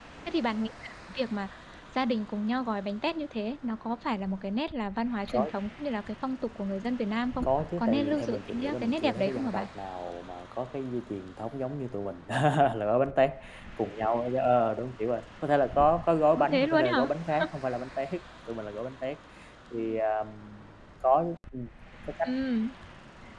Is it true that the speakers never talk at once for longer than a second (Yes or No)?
No